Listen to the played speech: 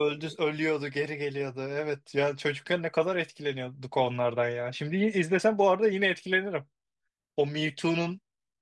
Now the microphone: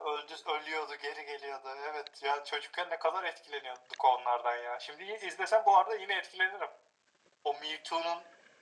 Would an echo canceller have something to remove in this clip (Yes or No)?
Yes